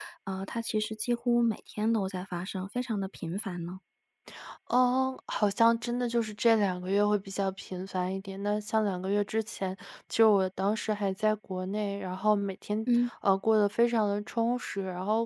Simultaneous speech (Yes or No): No